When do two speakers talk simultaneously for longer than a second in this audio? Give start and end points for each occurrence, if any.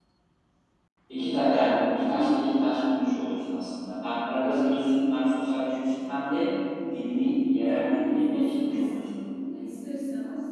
7.6-9.0

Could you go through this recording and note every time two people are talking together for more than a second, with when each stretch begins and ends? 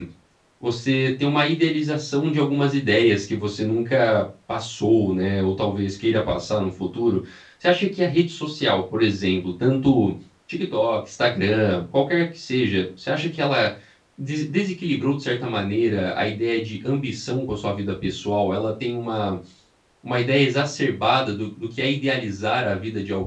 none

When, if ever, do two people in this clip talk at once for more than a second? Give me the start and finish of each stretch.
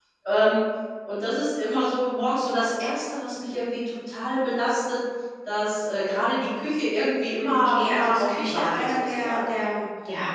7.4-9.6

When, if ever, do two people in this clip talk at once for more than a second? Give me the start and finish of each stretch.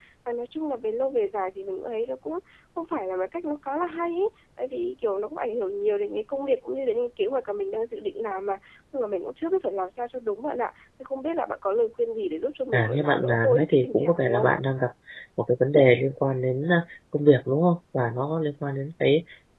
12.7-14.5

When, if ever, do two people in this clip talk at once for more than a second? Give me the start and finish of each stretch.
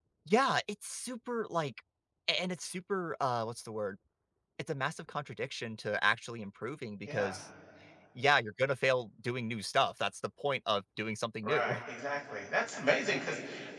none

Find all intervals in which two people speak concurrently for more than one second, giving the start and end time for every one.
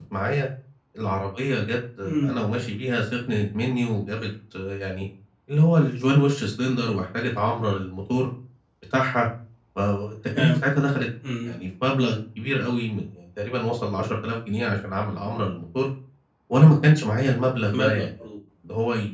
none

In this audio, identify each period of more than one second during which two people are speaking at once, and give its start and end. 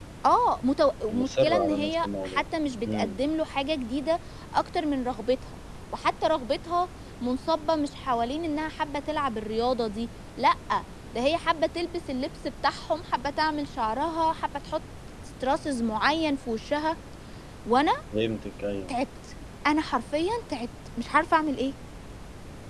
1.1-2.4

